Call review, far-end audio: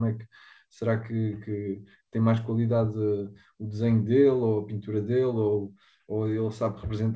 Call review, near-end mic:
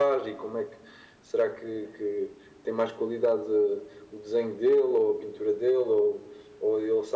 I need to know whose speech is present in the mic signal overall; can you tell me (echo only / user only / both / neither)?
echo only